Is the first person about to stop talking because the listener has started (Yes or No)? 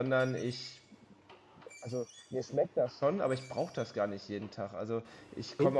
No